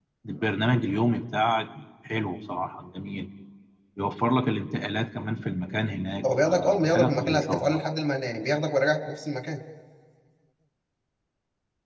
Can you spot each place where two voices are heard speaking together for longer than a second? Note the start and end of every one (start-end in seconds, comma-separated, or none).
6.2-7.8